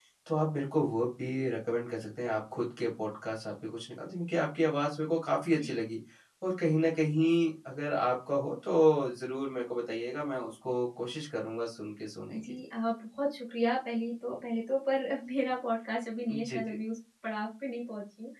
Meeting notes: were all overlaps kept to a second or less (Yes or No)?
Yes